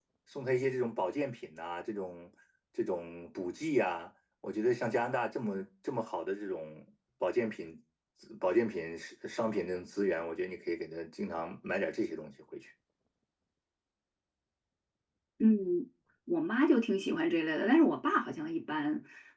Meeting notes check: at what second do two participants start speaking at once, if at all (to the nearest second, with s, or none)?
none